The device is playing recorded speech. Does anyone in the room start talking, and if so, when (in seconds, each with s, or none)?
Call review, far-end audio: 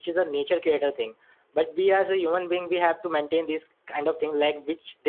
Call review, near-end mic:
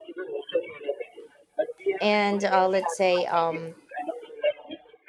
2.0 s